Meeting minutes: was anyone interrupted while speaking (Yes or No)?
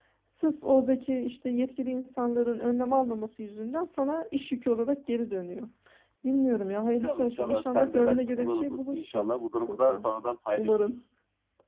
Yes